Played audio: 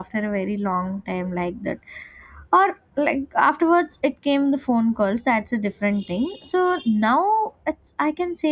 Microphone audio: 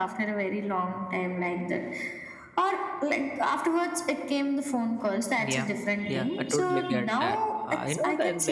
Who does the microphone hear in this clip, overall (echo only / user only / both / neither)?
both